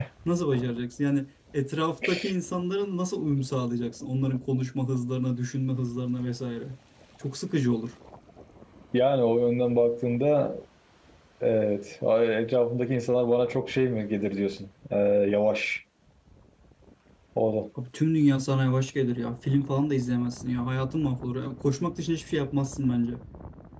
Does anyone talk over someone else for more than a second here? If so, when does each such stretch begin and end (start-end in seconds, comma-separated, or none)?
none